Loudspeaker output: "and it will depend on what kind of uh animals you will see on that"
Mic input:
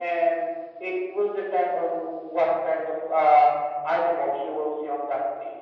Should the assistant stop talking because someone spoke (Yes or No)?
No